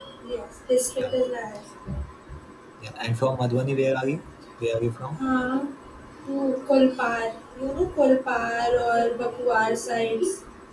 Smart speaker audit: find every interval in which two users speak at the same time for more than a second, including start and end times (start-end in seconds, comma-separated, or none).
none